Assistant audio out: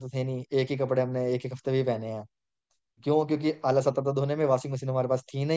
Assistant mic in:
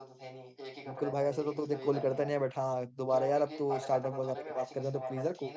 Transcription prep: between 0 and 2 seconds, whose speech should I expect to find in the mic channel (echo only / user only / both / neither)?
both